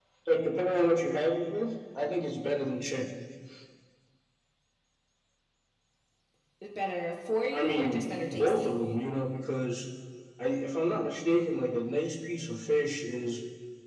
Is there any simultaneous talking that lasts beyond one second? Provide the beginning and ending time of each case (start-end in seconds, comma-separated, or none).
7.5-8.8